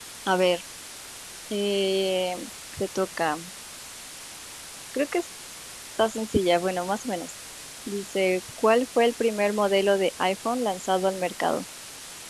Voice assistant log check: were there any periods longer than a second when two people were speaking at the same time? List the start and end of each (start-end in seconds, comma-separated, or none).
none